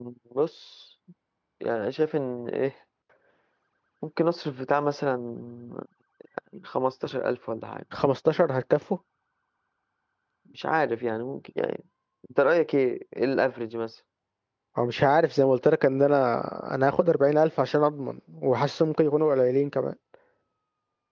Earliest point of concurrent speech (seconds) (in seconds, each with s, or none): none